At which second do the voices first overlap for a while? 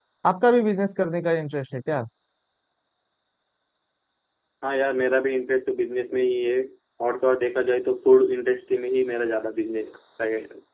none

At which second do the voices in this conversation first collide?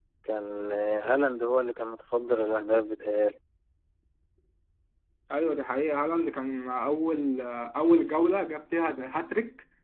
none

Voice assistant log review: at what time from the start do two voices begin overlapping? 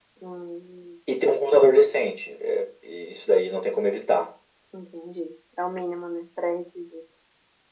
none

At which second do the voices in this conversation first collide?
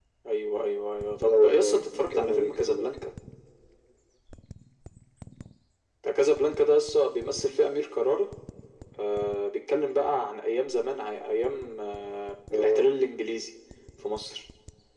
1.2 s

